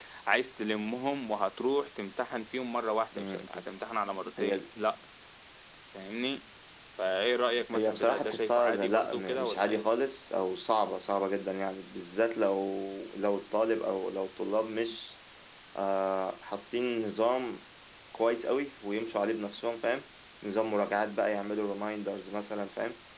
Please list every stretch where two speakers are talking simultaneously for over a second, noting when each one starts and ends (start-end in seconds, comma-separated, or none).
7.7-9.8